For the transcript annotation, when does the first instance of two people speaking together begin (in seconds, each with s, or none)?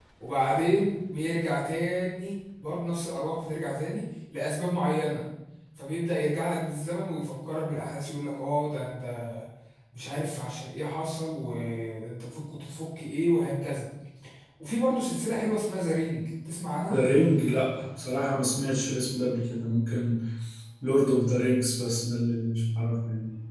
none